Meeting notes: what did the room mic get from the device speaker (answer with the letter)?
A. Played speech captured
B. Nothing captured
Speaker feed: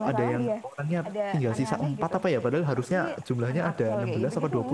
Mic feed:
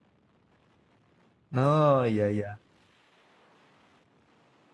B